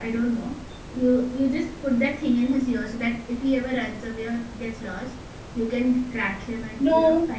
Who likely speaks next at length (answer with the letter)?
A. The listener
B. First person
B